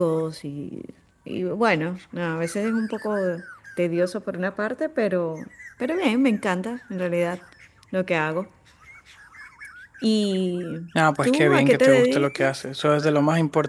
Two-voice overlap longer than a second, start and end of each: 11.2-12.6

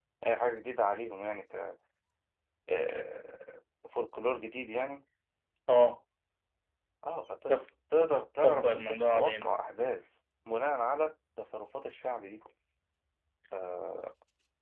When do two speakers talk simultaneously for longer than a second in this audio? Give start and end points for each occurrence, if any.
8.4-9.7

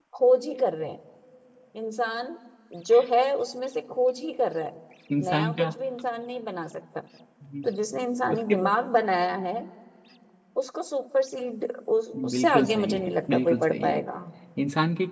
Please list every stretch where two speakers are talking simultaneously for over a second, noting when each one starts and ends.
12.3-14.0

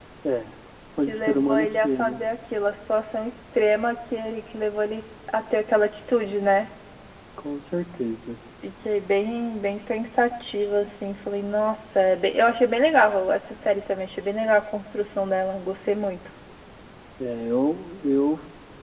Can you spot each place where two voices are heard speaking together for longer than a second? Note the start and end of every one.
1.0-2.2

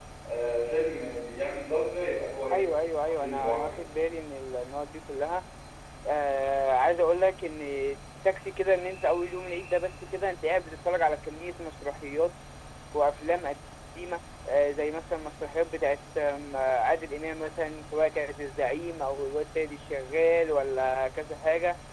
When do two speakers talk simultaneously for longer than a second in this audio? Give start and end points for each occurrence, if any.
2.5-3.8

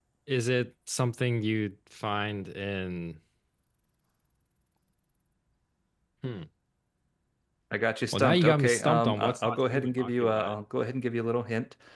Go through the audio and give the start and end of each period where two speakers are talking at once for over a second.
8.1-10.6

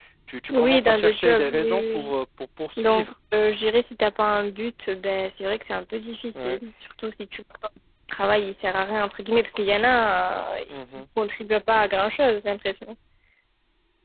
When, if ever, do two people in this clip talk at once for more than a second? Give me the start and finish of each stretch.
0.5-2.1

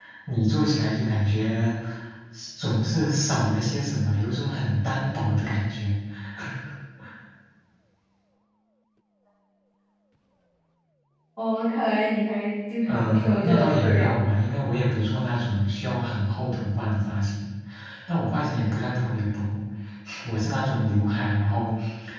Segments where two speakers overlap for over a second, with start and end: 12.9-14.4

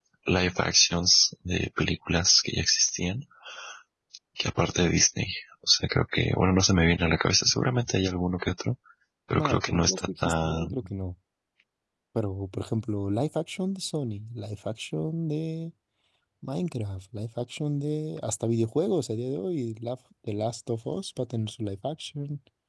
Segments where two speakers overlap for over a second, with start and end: 9.3-10.7

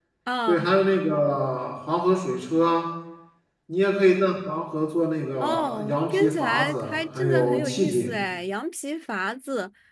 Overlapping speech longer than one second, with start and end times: 5.4-8.1

